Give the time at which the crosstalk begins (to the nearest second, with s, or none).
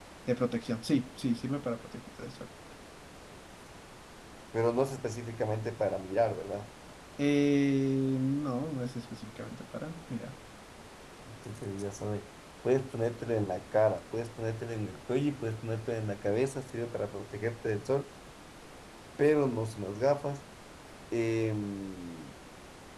none